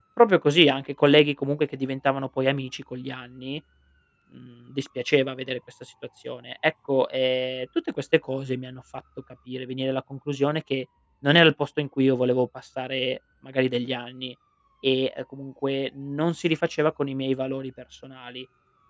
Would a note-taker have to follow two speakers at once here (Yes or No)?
No